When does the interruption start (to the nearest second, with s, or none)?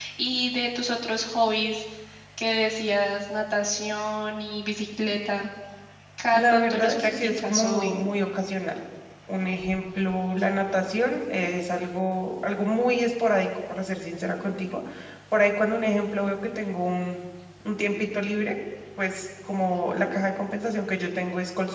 6 s